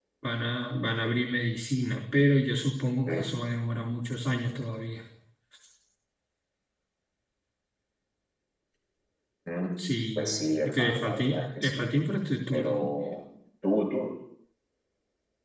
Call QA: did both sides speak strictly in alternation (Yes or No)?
No